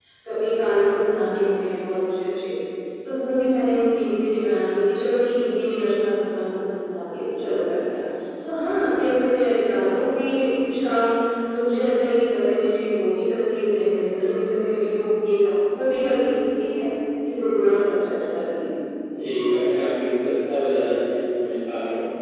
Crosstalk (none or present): none